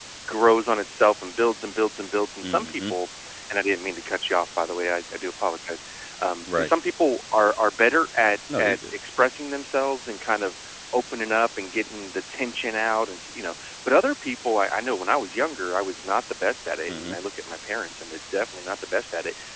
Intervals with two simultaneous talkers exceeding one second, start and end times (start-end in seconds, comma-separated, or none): none